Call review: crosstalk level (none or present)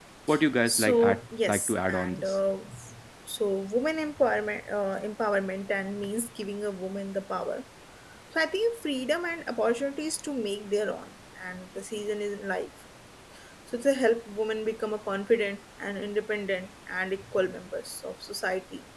present